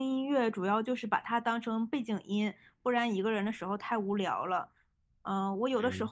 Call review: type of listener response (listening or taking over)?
listening